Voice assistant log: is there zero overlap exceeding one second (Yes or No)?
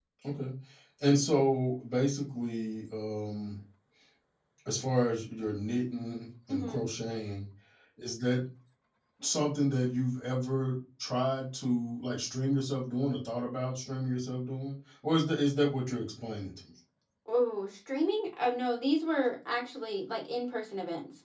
Yes